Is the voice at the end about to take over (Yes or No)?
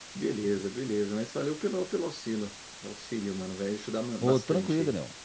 Yes